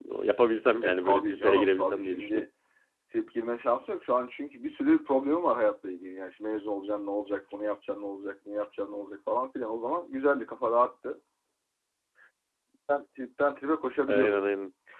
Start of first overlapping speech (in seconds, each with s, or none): 0.8 s